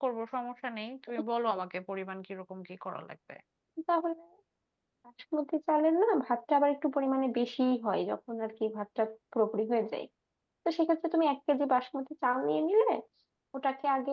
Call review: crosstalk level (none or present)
none